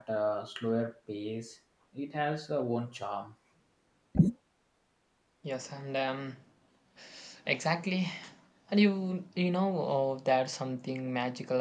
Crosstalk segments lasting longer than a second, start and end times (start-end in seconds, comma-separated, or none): none